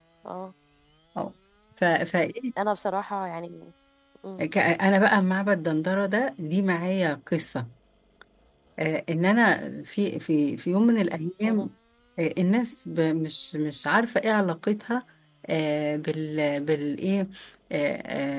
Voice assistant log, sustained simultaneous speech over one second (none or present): none